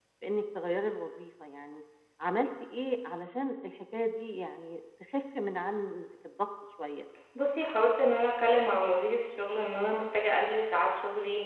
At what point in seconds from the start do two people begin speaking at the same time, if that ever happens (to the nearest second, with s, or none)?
none